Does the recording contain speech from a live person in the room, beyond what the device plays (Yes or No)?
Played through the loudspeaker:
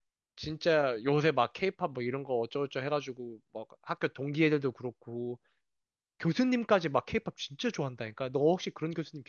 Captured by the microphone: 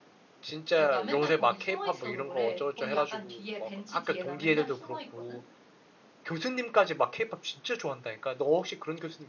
Yes